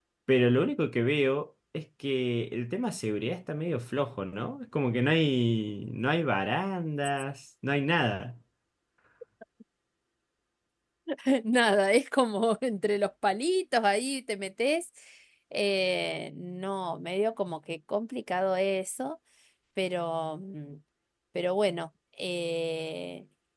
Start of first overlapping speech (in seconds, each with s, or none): none